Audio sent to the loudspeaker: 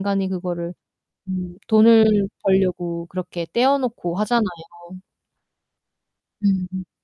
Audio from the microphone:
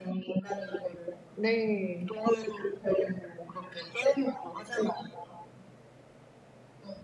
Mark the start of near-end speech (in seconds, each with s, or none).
1.4 s